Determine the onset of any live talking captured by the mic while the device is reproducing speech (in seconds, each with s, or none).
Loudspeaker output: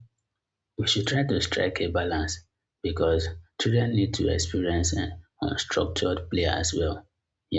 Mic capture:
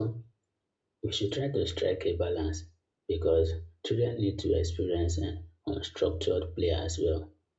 none